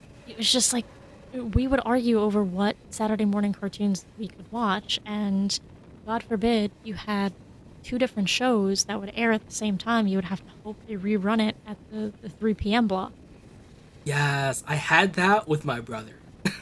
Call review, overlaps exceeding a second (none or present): none